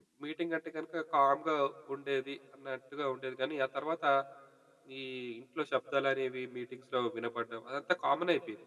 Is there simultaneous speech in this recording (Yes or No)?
No